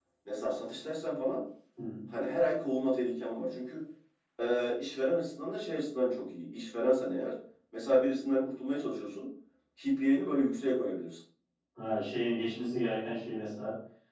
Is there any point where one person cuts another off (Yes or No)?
No